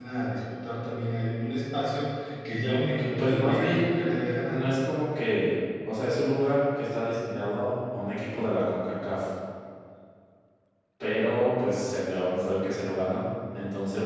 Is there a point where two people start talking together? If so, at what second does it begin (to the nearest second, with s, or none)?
3 s